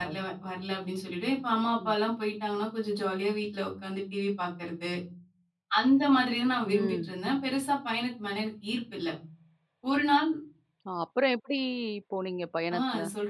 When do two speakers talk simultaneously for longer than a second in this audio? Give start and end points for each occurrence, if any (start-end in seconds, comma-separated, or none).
none